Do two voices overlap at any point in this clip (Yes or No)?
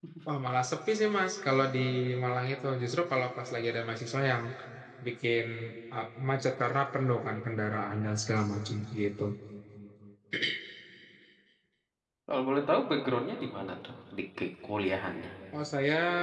No